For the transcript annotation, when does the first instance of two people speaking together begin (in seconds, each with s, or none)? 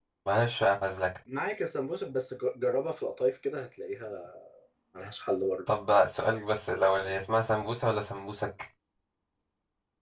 none